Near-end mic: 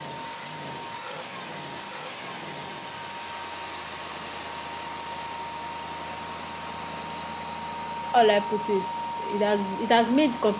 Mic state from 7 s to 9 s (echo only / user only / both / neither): user only